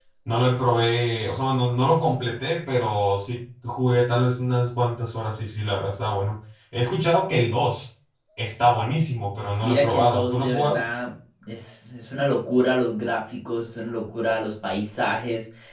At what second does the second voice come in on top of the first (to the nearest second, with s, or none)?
10 s